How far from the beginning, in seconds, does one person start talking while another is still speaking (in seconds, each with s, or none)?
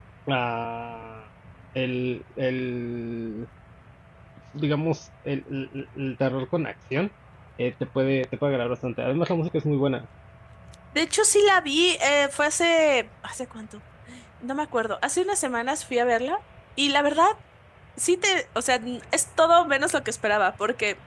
none